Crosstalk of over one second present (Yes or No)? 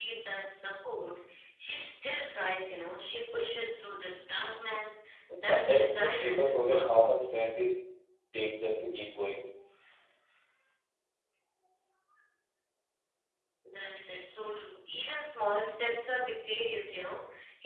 Yes